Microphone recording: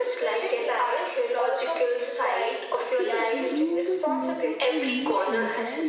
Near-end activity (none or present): present